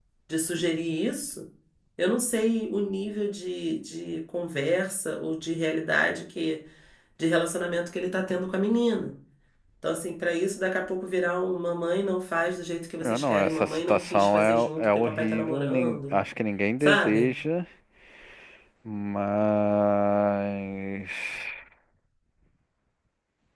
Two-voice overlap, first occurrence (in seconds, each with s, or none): 13.0 s